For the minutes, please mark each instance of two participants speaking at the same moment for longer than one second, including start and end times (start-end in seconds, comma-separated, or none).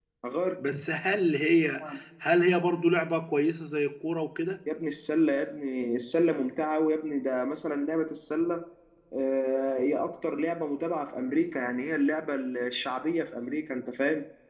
none